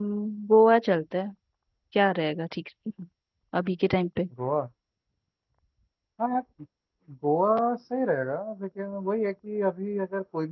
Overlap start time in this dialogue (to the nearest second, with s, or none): none